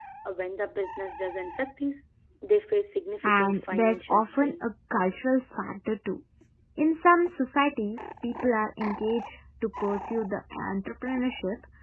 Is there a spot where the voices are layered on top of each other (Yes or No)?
Yes